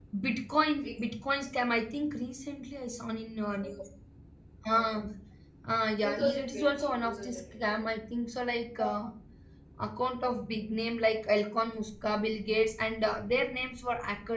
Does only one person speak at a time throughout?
No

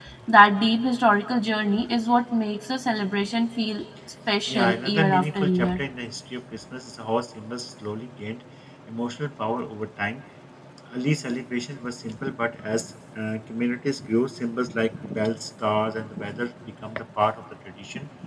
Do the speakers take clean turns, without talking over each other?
No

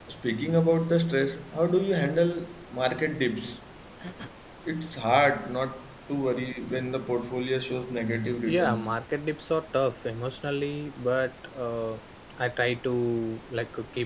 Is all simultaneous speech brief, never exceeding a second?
Yes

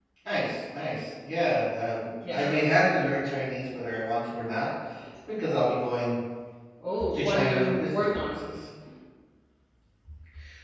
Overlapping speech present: Yes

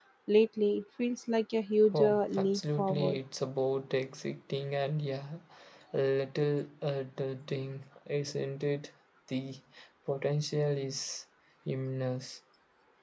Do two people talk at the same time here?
Yes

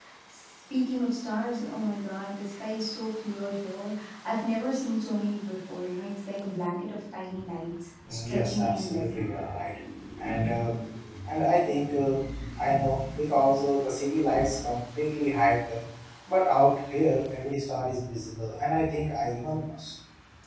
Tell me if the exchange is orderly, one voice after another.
No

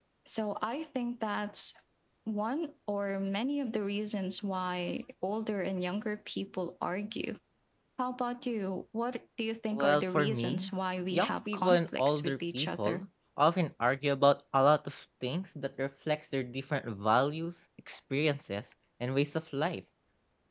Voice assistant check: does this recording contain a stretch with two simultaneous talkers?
Yes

